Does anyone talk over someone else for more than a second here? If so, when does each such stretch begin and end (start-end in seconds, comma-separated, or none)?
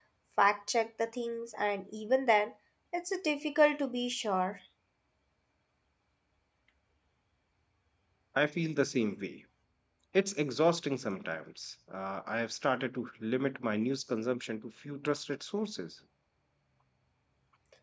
none